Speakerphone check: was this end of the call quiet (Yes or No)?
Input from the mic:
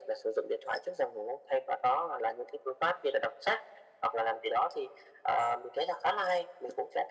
Yes